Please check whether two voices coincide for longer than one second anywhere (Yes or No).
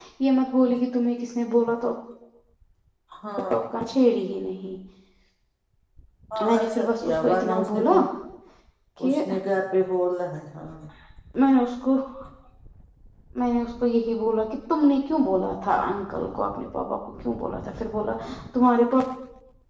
Yes